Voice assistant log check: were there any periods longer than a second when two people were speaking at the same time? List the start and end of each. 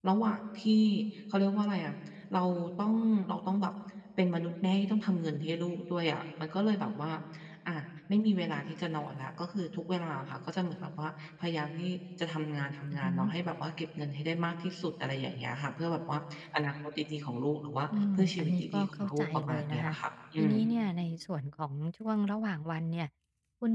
18.2-19.9

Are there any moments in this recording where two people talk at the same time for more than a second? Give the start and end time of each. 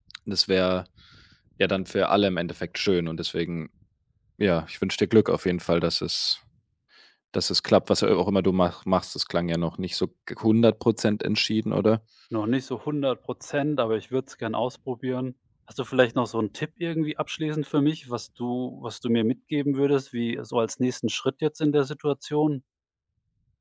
none

